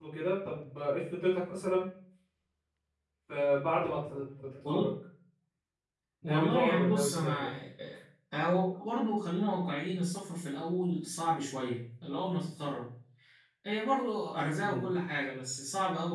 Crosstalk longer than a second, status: present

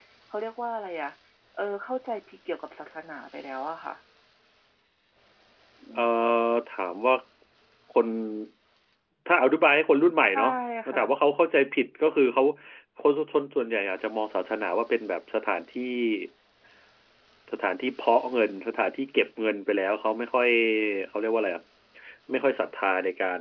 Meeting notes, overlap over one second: none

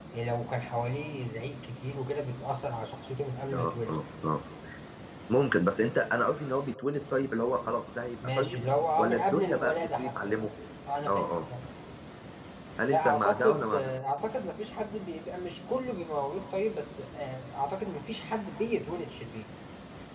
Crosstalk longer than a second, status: present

